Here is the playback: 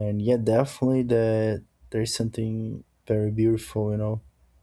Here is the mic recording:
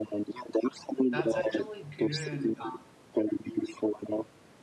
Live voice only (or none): That's actually good. And uh,